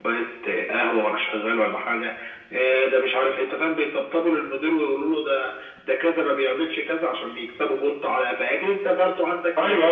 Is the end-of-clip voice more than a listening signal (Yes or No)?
Yes